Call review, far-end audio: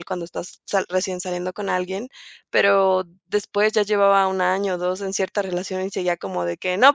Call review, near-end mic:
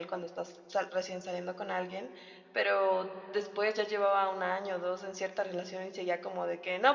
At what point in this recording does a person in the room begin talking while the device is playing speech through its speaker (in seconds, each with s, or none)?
none